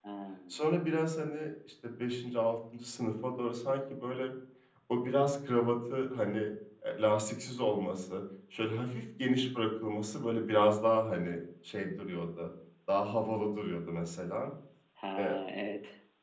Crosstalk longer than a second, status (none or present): none